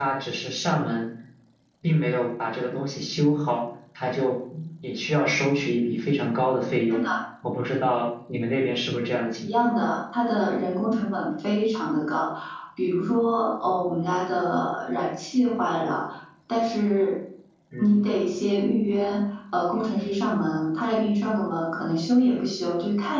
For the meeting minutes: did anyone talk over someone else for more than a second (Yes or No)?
No